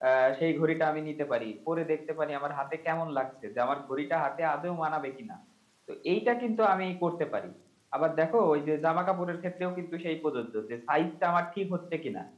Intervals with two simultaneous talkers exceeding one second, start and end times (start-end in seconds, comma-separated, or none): none